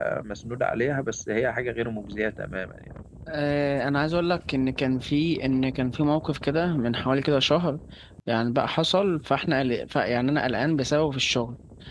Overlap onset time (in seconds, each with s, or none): none